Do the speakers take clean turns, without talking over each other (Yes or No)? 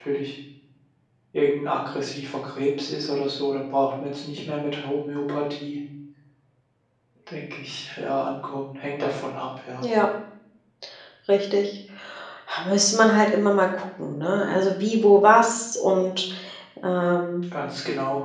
Yes